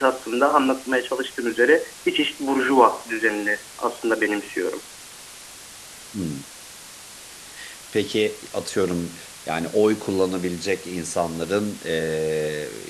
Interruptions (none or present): none